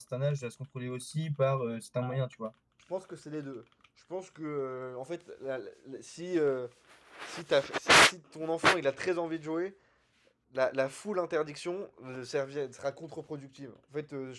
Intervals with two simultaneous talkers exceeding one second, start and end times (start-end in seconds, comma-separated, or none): none